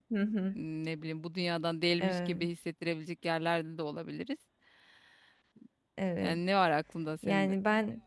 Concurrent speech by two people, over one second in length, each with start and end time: none

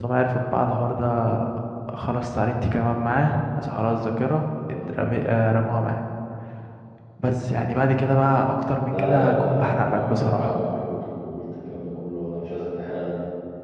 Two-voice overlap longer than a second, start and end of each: 8.9-10.5

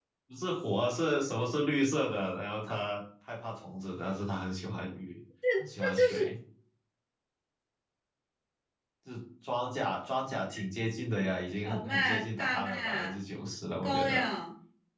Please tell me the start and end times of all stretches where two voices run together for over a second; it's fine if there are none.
11.7-13.1

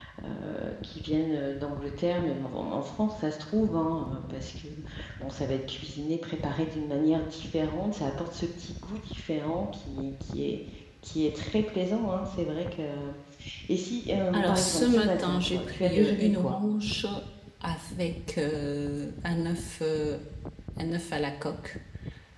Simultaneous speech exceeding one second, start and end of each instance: 14.3-16.6

